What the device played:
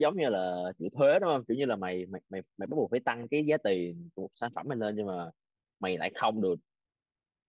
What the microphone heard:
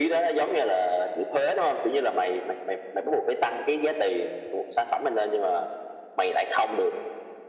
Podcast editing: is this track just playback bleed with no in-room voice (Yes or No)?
Yes